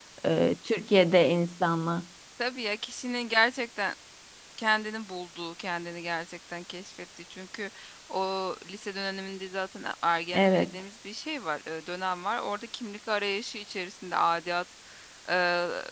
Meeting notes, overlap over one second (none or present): none